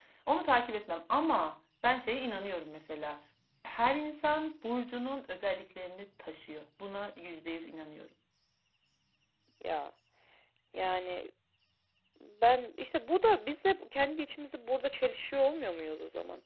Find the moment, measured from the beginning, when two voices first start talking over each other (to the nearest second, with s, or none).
none